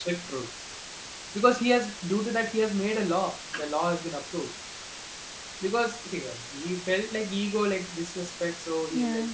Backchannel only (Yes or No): Yes